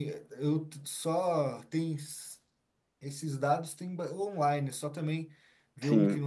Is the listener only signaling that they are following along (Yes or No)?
Yes